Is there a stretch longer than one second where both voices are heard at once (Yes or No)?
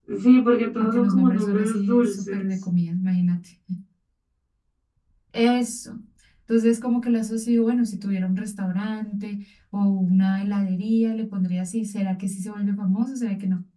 Yes